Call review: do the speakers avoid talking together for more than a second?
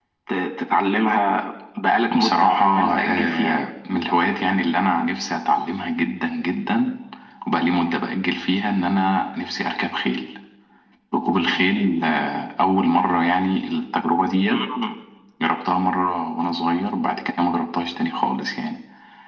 No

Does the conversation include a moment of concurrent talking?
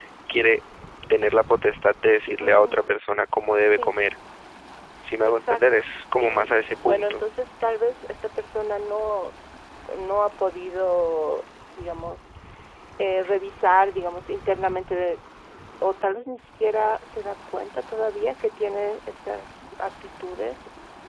Yes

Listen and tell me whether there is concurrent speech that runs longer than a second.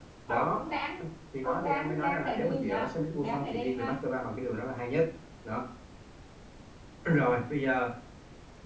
Yes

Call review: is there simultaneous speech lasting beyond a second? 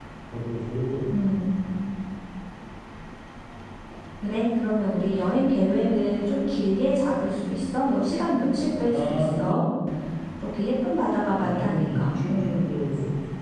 Yes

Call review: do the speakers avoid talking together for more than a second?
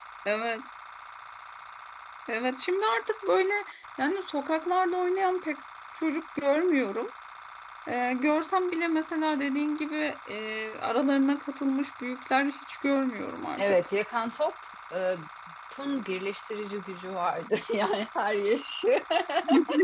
Yes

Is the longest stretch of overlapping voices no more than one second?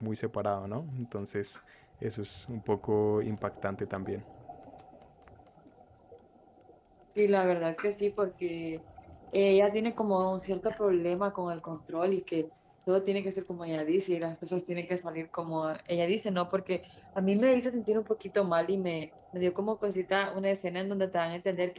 Yes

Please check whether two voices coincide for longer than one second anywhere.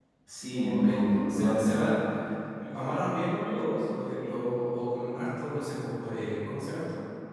Yes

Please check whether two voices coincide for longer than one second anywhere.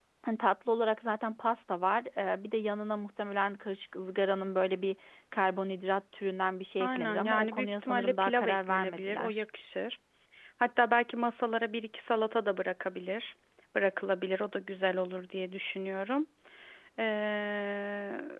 Yes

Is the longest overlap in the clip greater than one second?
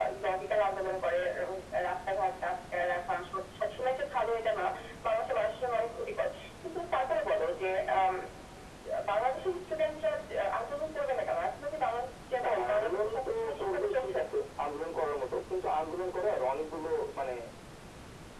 Yes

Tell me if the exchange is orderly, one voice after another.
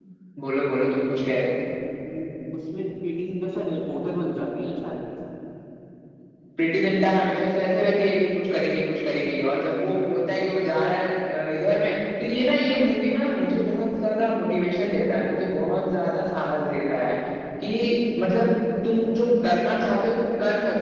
Yes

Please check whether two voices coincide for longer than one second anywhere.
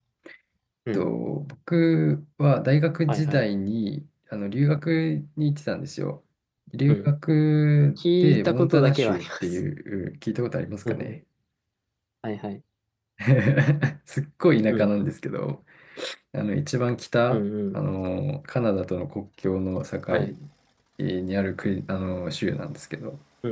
Yes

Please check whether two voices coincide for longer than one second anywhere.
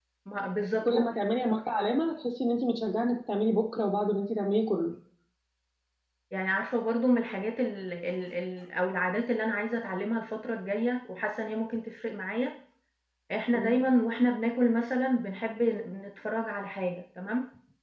No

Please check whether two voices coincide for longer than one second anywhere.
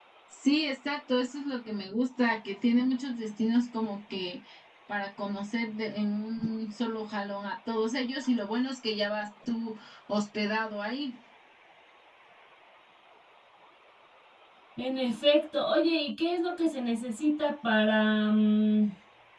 No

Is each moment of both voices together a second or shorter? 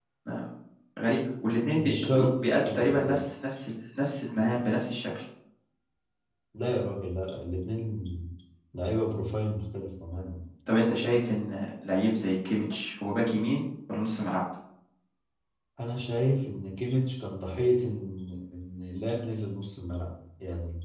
No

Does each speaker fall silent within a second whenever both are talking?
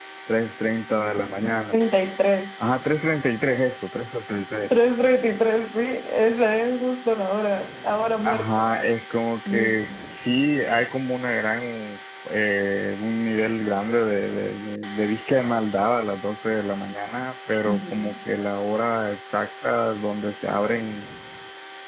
Yes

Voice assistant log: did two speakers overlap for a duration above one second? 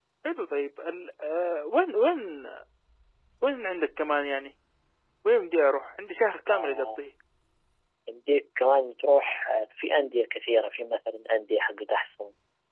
No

